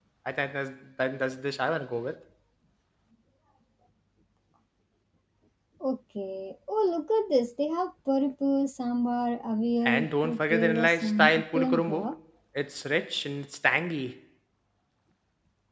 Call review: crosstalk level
present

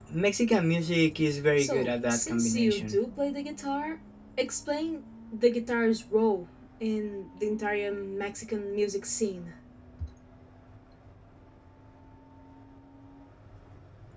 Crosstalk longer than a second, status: present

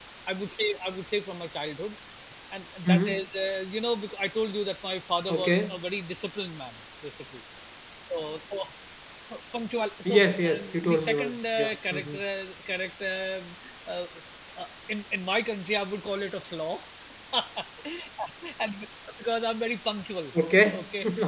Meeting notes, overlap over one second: present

